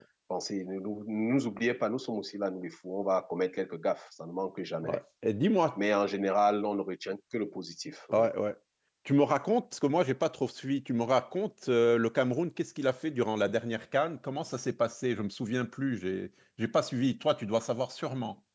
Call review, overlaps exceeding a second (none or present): none